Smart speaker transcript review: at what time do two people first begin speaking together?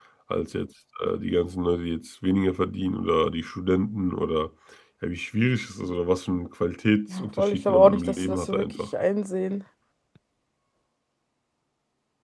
7.1 s

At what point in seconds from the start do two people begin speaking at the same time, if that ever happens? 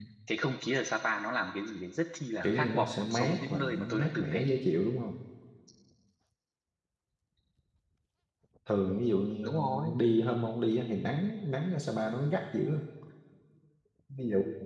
2.4 s

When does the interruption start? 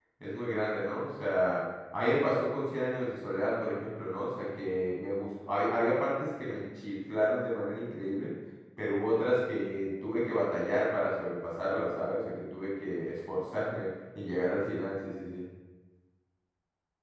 none

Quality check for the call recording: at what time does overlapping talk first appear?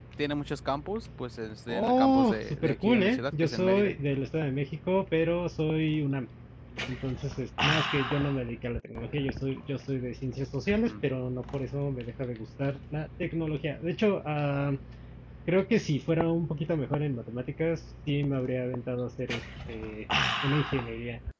1.7 s

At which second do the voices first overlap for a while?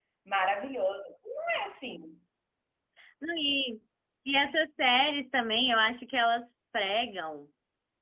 none

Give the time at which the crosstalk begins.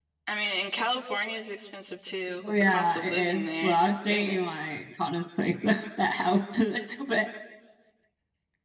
2.4 s

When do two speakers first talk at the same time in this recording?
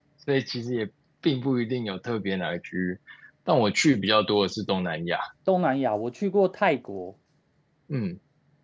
none

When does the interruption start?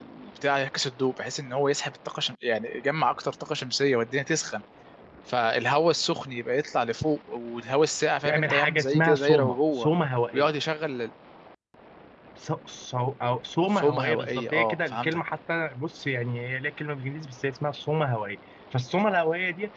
8.2 s

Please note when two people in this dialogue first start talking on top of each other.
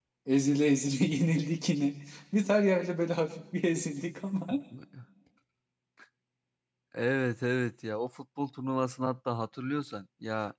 none

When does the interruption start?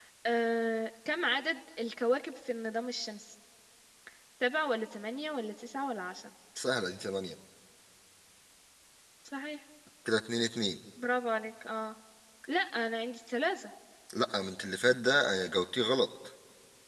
none

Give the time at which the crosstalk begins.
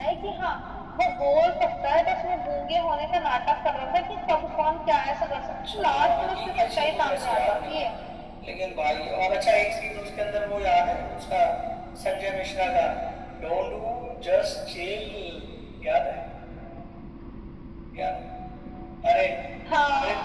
5.7 s

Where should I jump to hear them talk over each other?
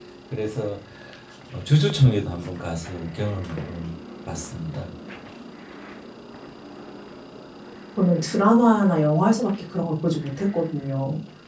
none

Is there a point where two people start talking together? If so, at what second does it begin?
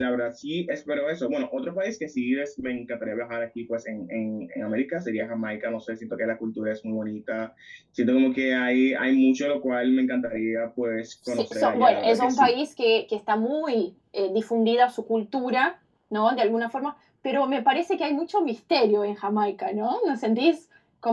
11.2 s

